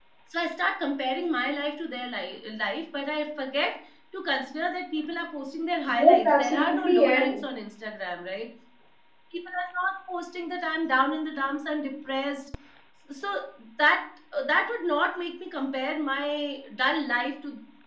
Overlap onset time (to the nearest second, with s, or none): 6 s